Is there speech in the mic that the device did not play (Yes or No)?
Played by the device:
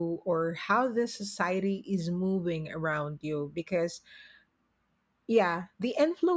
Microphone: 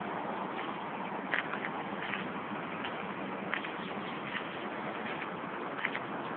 No